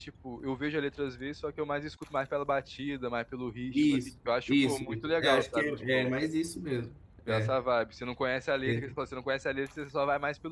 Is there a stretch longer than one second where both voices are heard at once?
Yes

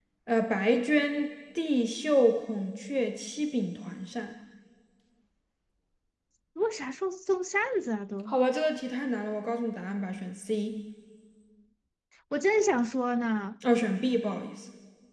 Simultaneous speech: No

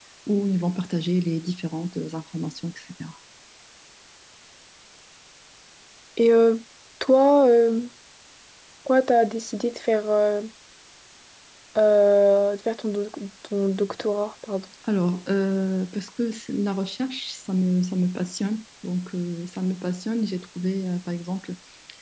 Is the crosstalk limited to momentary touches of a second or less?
Yes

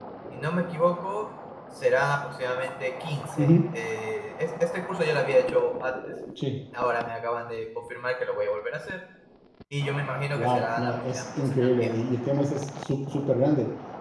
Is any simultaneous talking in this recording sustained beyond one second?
Yes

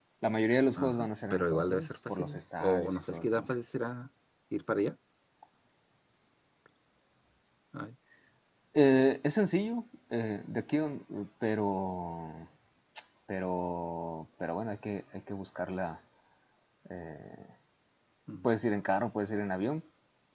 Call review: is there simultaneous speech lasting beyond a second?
Yes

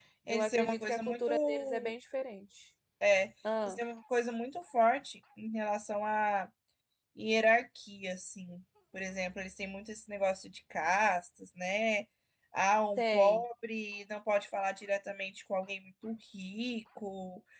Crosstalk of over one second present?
Yes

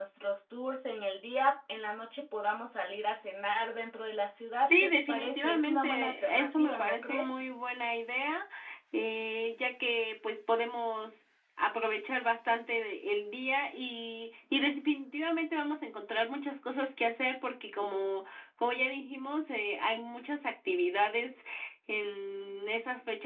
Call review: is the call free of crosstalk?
No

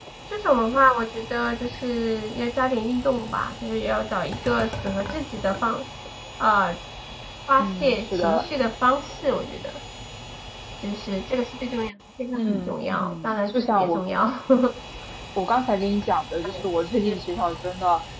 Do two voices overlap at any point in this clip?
Yes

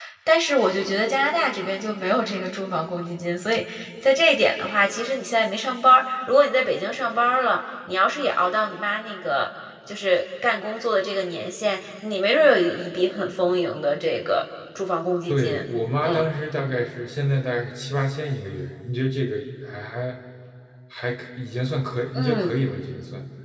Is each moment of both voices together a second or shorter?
Yes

